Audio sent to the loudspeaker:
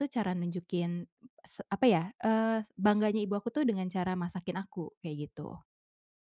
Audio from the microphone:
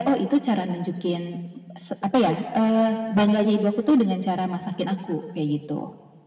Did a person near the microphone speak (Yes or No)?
No